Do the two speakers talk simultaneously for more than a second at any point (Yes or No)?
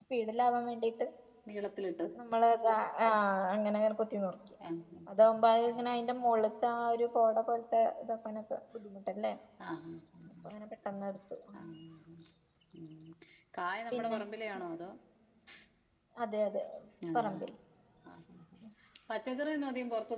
No